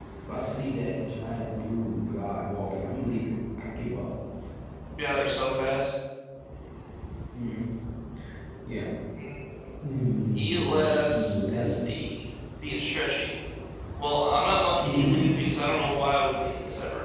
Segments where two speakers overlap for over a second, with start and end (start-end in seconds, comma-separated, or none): 10.4-11.6